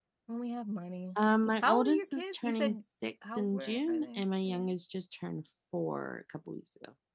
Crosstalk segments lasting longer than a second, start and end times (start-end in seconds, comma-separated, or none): 1.6-2.8, 3.3-4.7